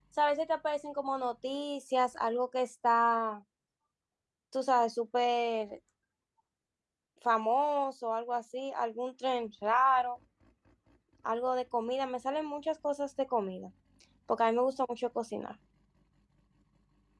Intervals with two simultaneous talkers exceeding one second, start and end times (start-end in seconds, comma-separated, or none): none